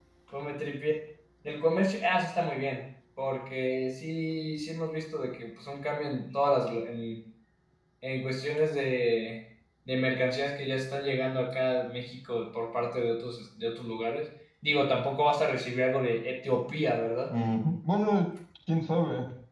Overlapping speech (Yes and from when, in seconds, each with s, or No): No